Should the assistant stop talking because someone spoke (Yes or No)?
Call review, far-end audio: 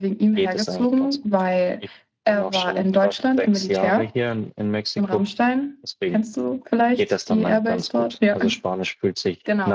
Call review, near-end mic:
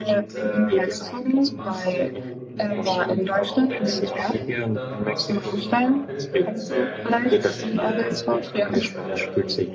Yes